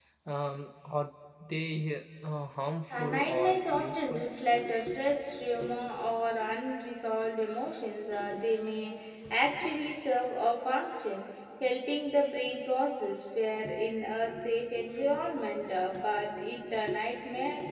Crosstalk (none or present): present